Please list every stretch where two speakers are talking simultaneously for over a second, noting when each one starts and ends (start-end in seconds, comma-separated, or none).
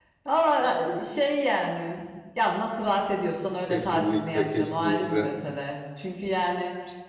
3.7-5.3